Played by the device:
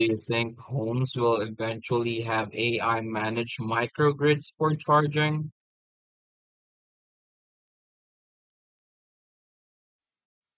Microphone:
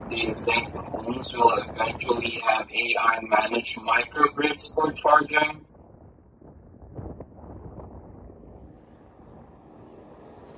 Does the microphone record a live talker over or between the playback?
No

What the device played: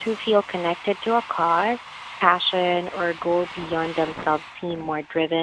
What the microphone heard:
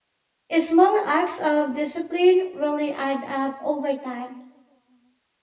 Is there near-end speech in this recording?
Yes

